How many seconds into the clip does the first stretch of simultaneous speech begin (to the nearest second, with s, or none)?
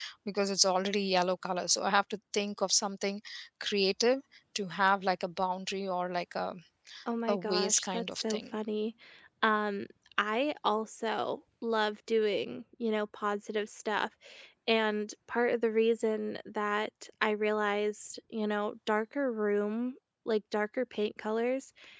7 s